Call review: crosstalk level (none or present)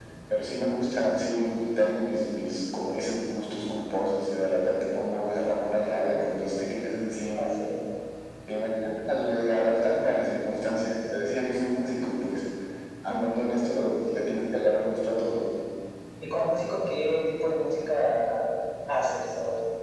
none